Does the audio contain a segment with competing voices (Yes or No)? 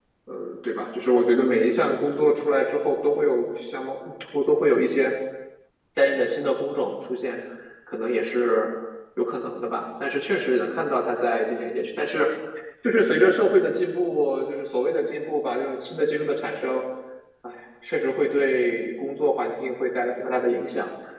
No